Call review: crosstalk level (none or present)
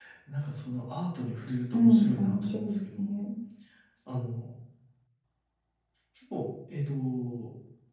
present